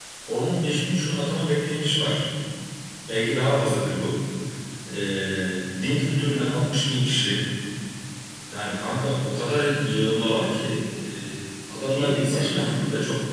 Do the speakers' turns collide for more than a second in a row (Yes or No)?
Yes